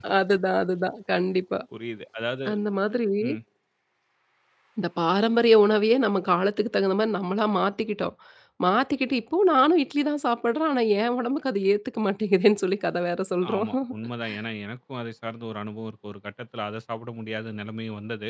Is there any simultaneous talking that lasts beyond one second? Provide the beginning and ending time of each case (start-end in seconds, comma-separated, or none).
none